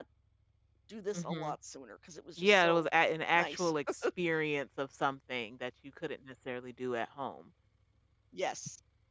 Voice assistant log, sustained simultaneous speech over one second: none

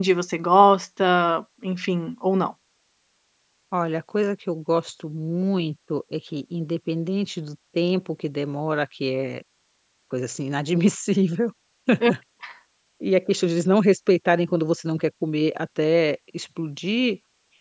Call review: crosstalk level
none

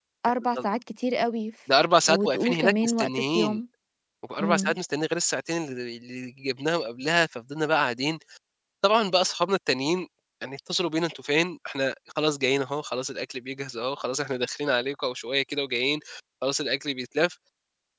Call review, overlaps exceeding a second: present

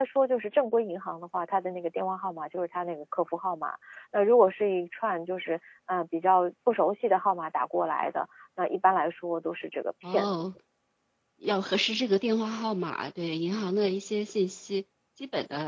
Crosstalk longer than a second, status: none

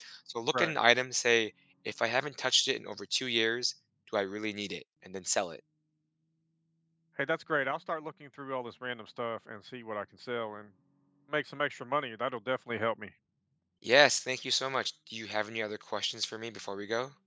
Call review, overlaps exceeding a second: none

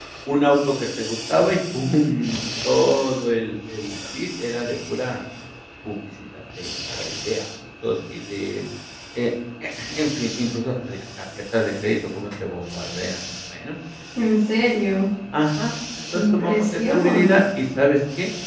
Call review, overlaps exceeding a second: present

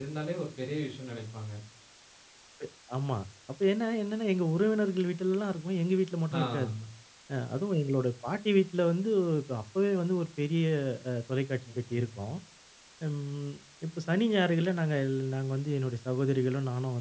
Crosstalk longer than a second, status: none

